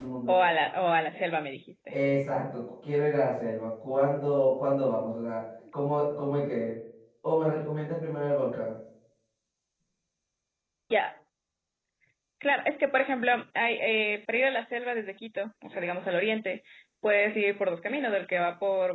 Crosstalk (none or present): none